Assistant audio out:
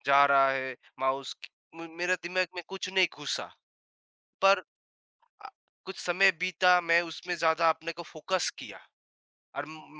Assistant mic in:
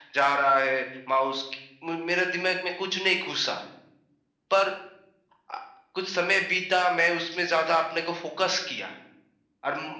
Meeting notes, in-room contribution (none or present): none